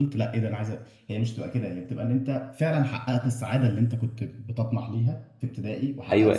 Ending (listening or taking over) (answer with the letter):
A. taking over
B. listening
A